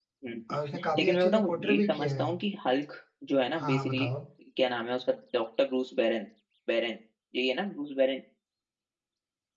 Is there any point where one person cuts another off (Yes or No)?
Yes